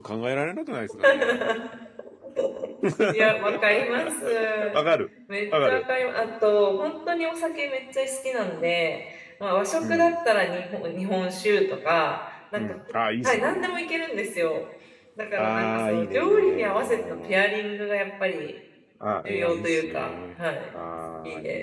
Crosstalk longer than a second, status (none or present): present